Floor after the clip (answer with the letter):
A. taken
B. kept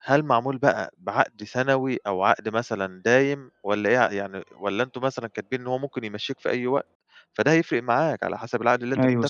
A